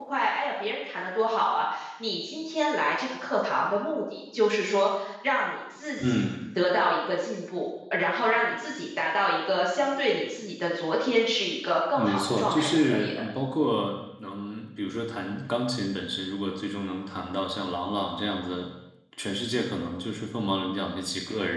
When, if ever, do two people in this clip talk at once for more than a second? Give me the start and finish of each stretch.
11.9-13.2

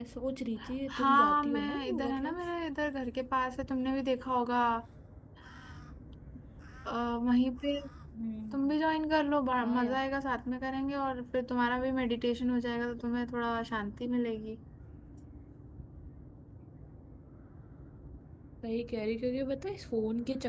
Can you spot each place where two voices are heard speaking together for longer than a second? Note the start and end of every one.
1.0-2.4

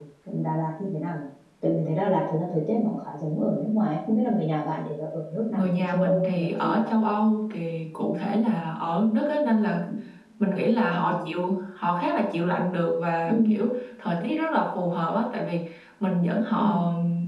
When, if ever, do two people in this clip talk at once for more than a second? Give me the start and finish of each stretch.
5.5-6.8

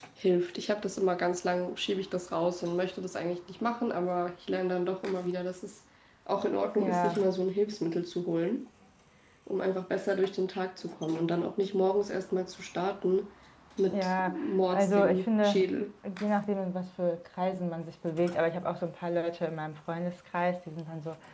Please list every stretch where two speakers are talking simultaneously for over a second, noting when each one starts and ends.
13.9-15.7

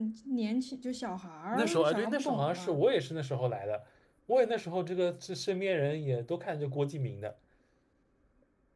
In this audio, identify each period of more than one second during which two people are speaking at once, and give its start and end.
1.5-2.8

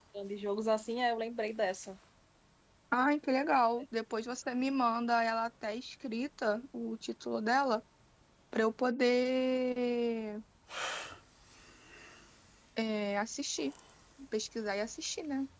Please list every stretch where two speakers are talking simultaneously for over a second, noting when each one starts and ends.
none

